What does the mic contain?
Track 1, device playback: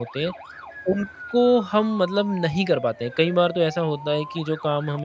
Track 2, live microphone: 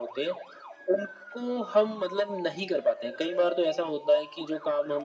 echo only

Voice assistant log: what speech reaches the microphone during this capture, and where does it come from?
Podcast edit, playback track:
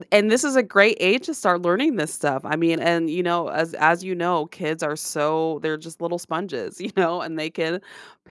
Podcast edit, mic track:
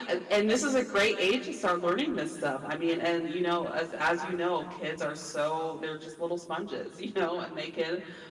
echo only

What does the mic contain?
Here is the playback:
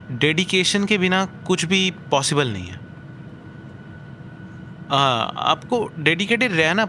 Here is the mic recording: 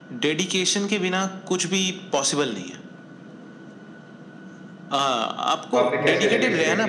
both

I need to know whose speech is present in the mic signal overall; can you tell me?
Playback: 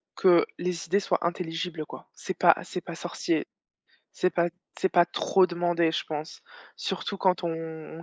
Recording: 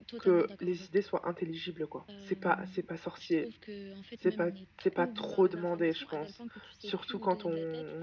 both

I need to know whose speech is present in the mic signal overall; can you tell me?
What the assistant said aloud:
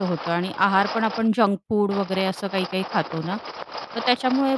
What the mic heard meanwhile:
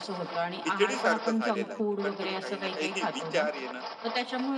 both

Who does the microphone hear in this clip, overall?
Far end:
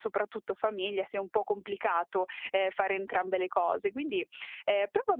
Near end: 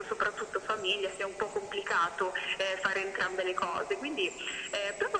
echo only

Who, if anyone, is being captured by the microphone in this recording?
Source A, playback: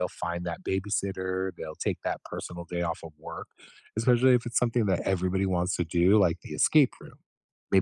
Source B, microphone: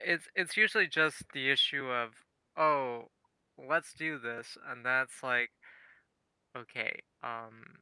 user only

